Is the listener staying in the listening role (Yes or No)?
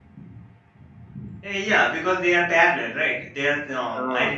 No